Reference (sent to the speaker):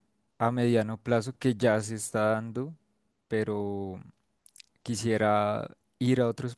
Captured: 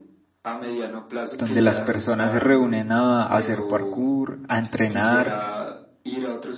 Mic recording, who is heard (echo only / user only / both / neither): both